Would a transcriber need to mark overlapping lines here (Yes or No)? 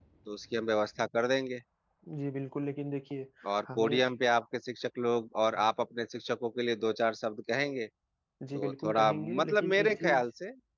Yes